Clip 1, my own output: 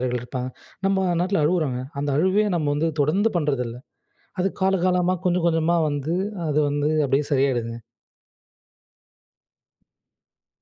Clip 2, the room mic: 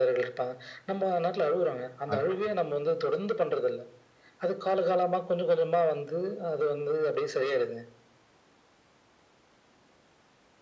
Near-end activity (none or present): present